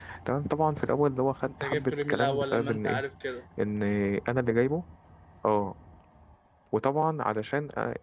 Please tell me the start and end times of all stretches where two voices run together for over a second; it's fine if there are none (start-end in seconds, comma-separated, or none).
1.6-3.0